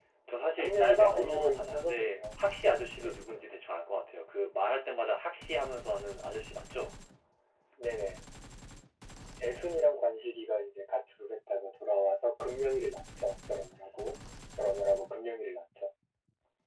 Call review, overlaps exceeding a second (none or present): present